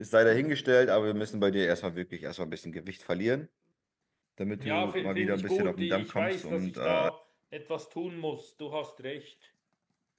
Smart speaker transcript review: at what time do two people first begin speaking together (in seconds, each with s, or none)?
4.6 s